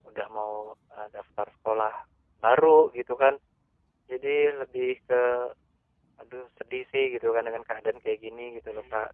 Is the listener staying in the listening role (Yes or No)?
No